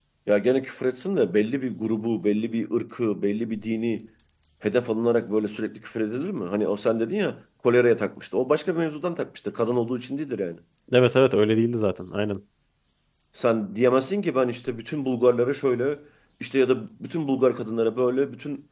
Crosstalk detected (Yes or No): No